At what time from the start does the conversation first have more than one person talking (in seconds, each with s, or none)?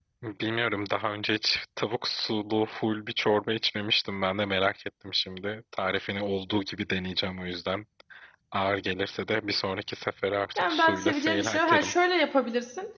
10.6 s